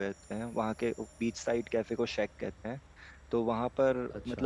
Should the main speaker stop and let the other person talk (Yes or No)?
No